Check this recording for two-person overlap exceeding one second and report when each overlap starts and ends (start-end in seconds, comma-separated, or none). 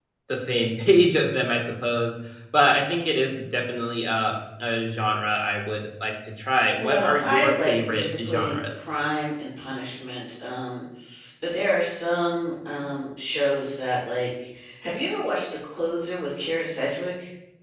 6.8-8.9